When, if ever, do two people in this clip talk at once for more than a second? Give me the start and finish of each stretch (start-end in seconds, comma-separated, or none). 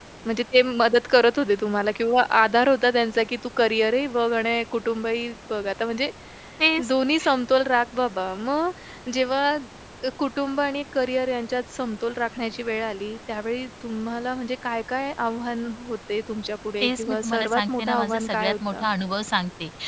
16.8-18.9